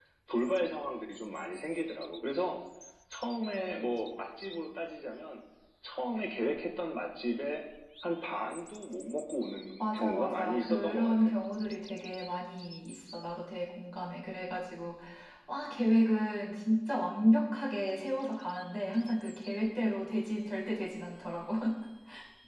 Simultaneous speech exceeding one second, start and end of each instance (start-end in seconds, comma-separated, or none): 9.8-11.3